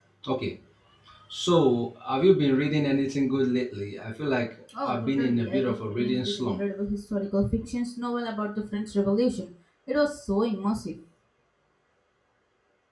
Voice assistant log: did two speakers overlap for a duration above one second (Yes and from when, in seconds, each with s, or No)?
Yes, from 4.7 s